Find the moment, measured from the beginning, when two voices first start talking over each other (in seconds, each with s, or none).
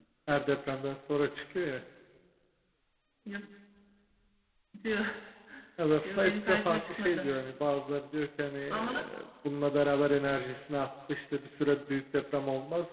6.0 s